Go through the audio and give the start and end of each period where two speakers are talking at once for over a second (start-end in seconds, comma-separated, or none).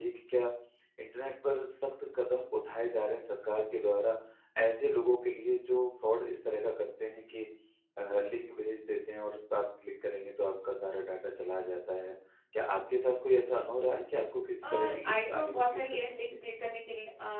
14.6-16.1